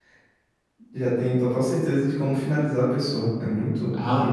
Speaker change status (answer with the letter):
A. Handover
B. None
A